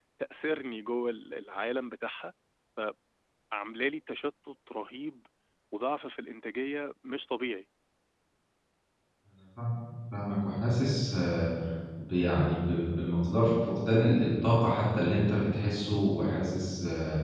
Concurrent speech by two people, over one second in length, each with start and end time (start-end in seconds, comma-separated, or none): none